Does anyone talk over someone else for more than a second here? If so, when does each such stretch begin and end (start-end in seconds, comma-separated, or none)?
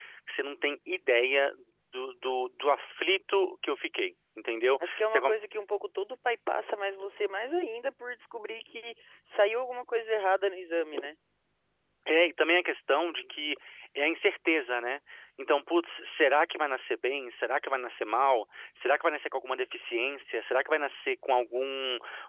none